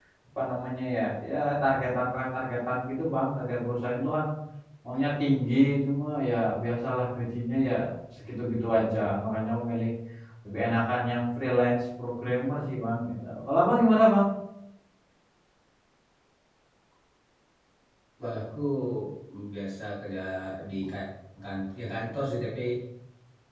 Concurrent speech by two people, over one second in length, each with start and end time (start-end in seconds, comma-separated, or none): none